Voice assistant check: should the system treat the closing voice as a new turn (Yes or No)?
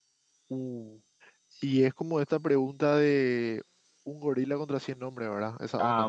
Yes